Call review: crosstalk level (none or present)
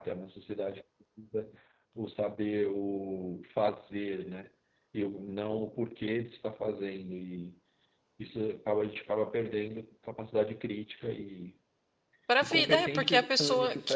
present